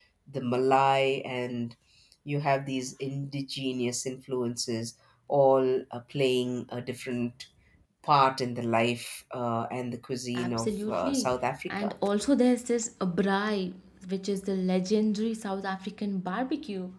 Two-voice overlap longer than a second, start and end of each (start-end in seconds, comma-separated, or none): 10.3-11.9